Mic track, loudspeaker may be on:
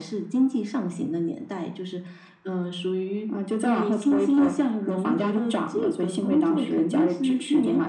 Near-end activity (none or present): none